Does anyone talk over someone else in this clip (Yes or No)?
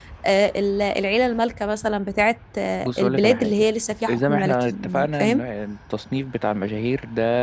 Yes